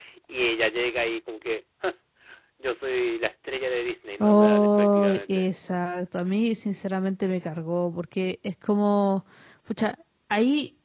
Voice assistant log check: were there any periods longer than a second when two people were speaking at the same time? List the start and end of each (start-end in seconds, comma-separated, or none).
4.2-5.5